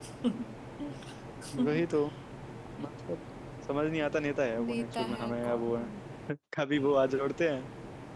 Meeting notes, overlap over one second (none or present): present